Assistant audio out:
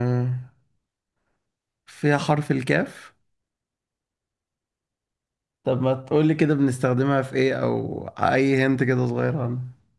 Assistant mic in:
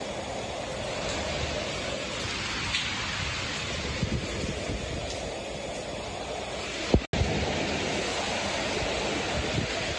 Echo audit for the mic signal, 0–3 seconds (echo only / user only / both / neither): neither